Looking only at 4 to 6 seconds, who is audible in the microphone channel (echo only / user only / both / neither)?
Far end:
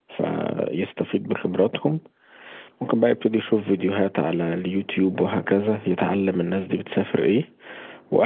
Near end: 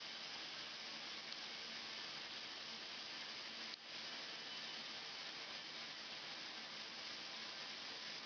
neither